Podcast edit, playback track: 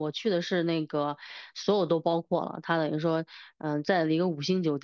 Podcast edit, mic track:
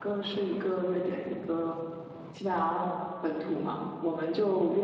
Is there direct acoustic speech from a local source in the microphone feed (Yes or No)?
Yes